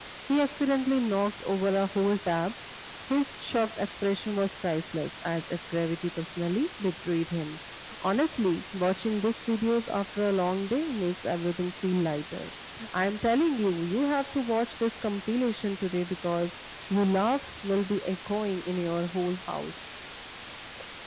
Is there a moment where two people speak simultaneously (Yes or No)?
No